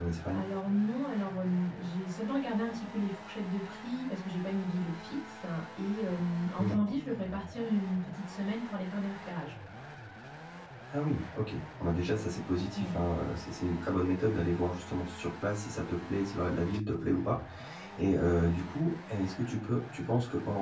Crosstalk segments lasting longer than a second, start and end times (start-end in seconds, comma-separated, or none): none